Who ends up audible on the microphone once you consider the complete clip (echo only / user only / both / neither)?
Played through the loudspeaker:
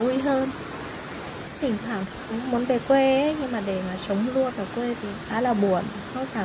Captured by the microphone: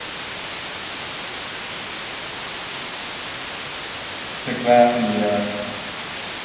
user only